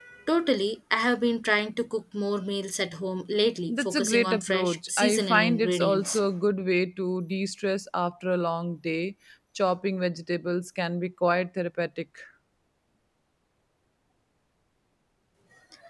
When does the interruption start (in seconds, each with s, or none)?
3.7 s